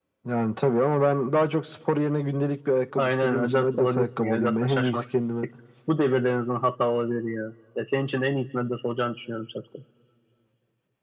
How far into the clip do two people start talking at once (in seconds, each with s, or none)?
3.0 s